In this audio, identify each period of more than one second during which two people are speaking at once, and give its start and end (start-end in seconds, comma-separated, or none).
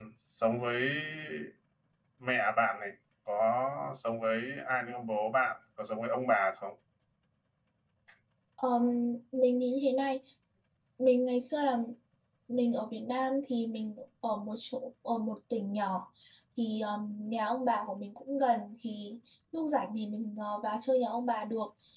none